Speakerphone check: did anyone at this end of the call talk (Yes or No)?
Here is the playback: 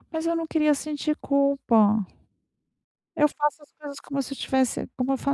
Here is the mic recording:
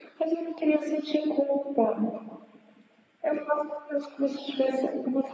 No